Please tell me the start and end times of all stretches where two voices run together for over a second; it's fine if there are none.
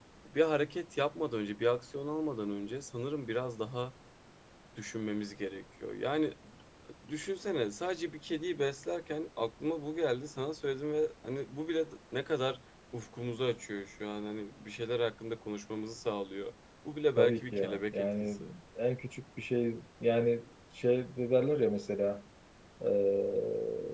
17.2-18.4

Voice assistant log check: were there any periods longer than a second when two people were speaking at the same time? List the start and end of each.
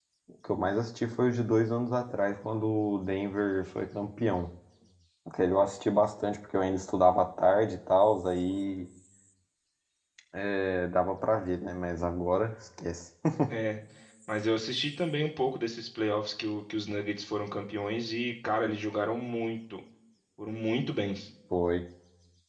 none

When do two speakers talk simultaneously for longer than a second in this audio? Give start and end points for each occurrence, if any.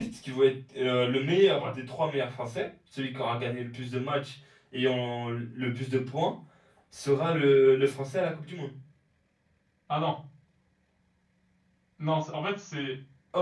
none

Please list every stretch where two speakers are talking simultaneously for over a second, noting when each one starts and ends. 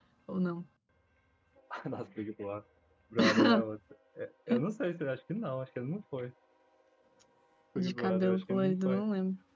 7.8-9.0

